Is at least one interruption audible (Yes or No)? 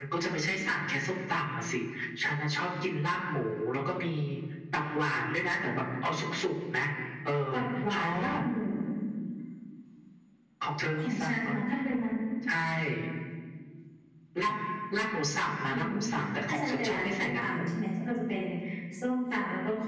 Yes